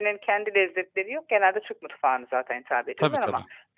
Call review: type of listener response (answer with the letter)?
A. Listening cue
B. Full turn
A